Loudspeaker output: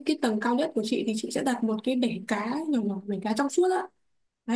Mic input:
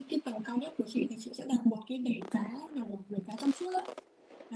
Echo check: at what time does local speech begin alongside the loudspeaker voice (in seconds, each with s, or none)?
none